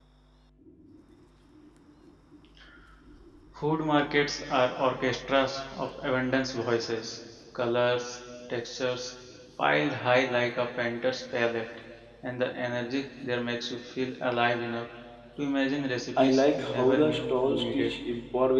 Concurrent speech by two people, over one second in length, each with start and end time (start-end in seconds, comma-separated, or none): 16.2-17.9